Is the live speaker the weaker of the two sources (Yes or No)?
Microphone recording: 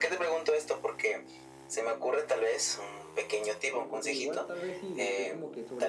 Yes